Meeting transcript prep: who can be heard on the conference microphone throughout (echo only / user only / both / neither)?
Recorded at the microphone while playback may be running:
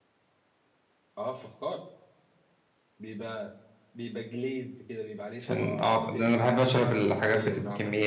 both